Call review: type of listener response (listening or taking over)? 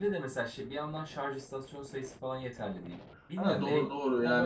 taking over